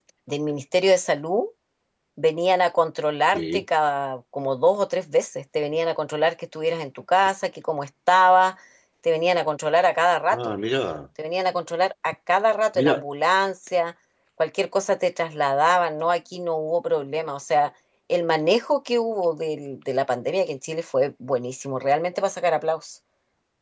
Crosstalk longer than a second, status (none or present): none